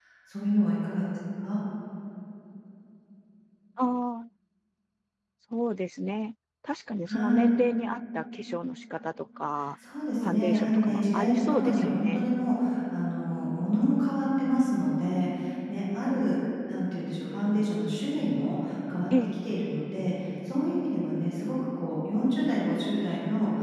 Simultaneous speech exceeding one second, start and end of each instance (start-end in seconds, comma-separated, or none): 10.2-12.3